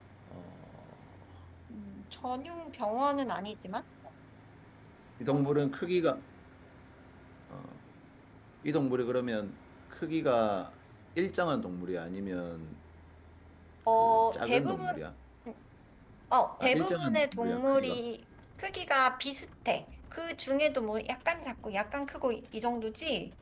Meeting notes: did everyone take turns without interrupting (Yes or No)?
No